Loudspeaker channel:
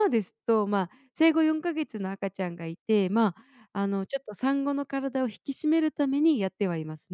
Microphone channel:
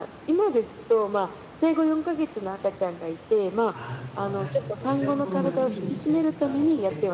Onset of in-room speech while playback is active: 4 s

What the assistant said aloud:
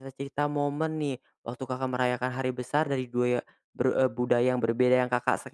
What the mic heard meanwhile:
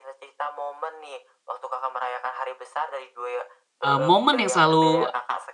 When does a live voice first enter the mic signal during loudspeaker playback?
4 s

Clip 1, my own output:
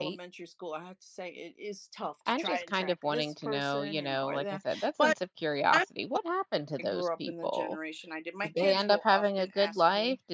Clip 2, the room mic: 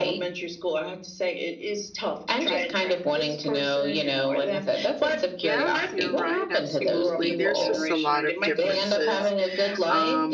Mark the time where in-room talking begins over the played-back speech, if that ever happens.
5 s

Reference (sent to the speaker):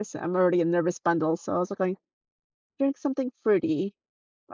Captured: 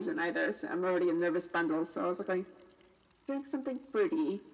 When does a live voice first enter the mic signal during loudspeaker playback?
none

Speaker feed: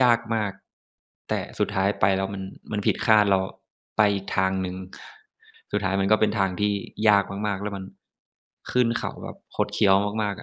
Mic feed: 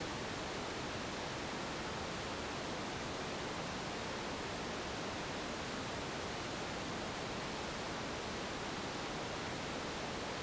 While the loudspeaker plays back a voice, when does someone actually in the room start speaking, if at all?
none

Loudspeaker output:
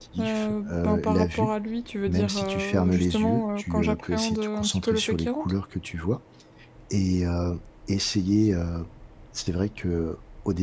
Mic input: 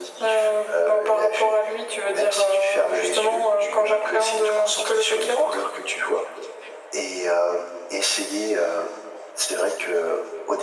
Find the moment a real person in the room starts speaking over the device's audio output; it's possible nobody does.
none

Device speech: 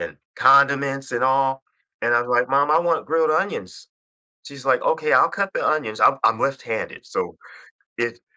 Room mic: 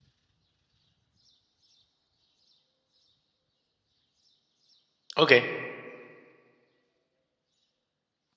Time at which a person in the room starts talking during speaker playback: 5 s

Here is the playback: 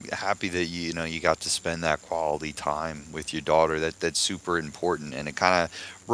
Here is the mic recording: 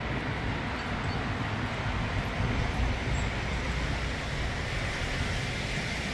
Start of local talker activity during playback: none

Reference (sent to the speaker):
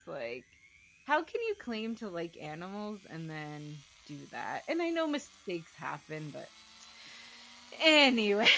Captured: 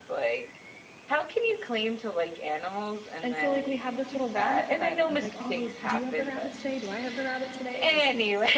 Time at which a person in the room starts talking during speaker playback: 3 s

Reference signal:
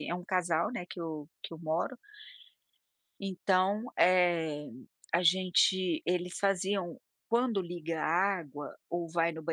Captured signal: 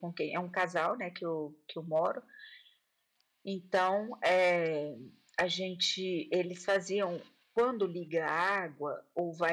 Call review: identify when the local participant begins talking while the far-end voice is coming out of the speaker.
none

